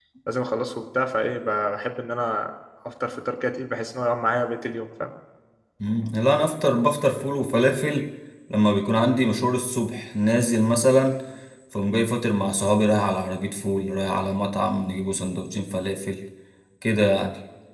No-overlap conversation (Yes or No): Yes